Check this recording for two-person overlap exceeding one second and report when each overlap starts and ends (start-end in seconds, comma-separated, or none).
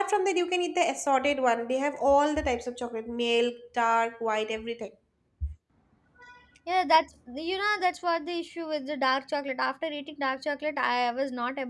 none